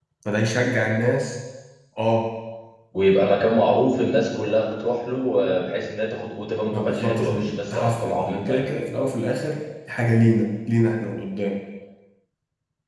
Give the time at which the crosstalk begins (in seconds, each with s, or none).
6.7 s